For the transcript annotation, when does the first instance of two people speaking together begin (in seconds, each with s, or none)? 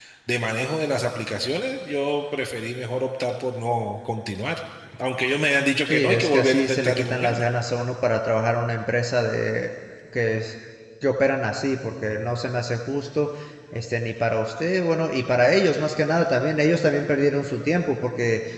5.9 s